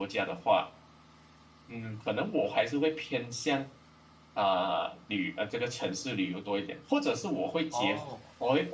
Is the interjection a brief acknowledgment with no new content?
Yes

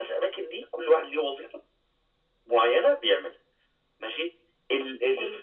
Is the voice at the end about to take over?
No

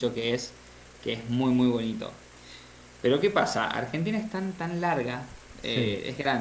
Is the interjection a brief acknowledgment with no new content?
Yes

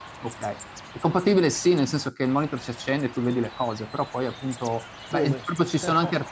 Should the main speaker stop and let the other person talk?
No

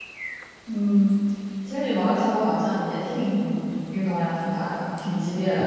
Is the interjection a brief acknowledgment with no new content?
No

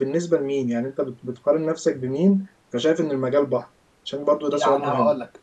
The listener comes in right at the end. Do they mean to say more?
Yes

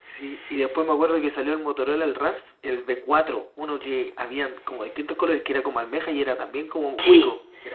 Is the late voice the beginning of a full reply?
Yes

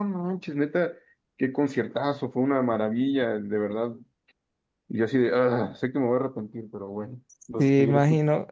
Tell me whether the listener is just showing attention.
No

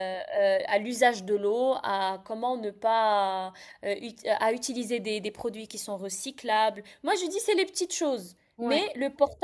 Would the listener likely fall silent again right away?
Yes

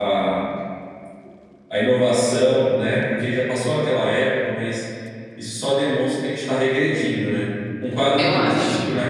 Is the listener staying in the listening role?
Yes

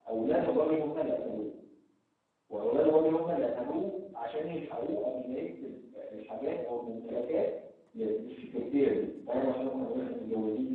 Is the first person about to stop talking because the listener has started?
No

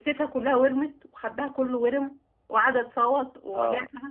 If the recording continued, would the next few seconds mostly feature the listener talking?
Yes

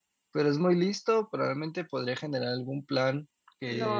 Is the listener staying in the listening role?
No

